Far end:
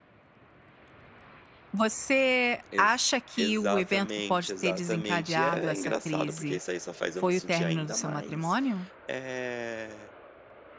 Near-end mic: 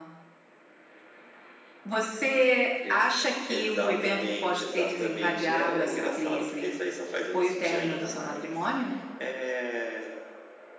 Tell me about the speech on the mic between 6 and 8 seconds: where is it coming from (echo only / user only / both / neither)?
echo only